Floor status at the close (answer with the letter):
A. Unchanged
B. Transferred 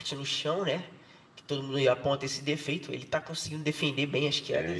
B